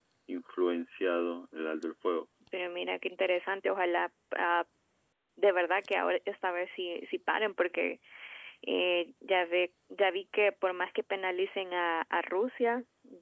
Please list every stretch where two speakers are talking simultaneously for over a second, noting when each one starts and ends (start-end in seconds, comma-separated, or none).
none